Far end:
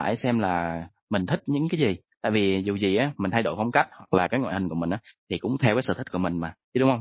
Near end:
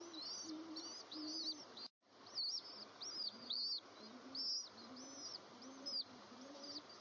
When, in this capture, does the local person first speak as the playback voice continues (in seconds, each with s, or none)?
none